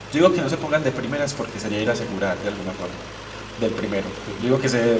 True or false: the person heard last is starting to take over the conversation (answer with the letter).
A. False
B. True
A